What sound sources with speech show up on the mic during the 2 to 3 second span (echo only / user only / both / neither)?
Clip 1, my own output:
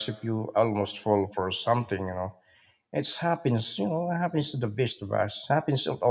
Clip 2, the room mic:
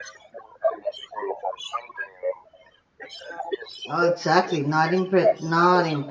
echo only